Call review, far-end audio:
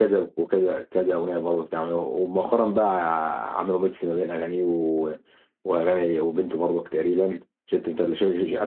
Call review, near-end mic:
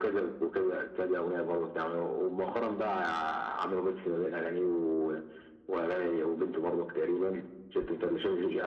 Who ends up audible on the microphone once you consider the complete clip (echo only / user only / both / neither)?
echo only